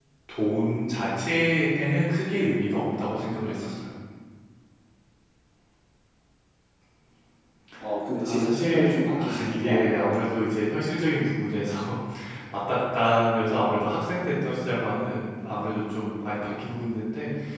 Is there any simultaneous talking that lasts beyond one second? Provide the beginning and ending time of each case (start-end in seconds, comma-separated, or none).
8.2-10.2